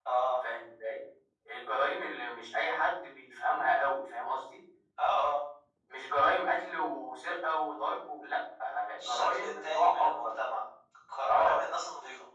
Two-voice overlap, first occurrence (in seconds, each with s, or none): 9.0 s